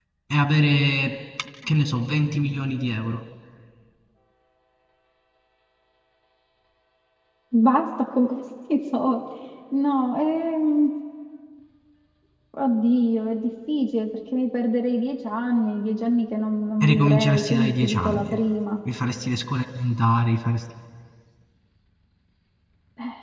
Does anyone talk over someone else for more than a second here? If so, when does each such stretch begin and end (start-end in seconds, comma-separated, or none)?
16.8-18.2